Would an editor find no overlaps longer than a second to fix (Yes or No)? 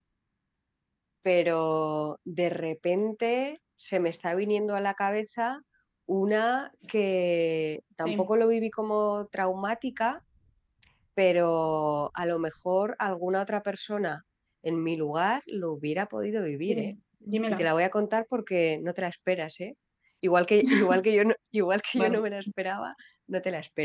Yes